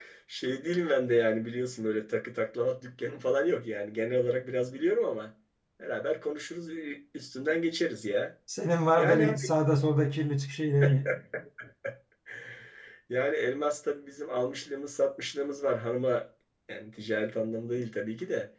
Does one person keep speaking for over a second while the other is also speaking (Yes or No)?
No